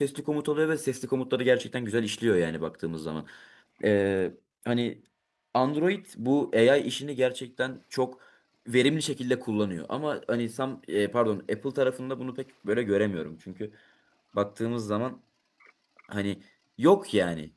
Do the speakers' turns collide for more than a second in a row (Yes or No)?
No